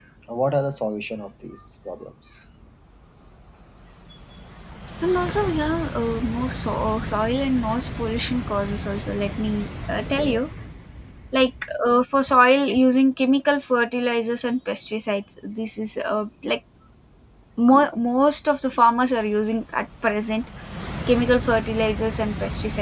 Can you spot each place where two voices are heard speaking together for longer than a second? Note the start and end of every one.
none

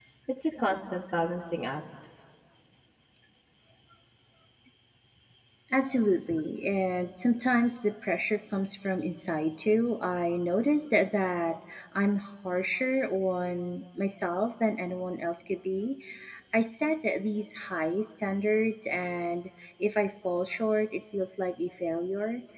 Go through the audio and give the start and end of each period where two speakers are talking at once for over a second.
none

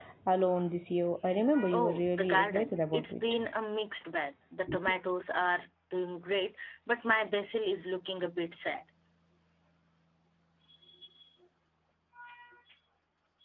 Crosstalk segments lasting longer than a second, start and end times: 1.7-3.2

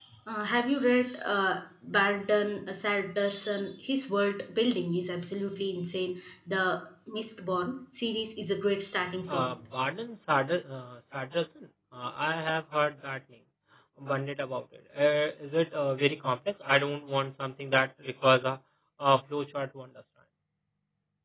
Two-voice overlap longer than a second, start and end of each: none

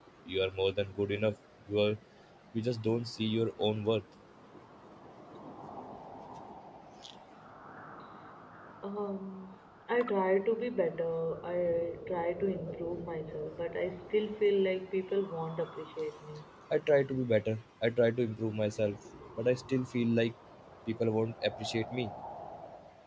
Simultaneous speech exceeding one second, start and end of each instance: none

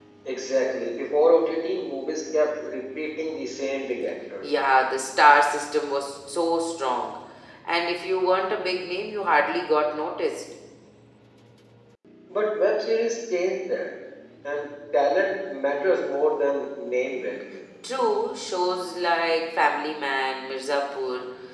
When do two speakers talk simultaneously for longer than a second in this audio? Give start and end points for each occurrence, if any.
none

